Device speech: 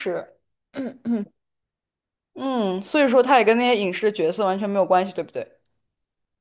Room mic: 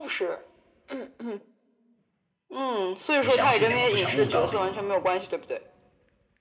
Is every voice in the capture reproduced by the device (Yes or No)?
No